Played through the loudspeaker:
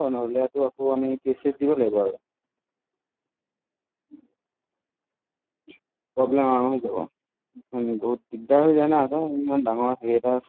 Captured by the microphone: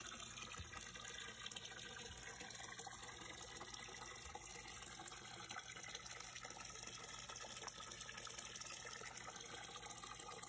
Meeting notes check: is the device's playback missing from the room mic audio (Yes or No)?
Yes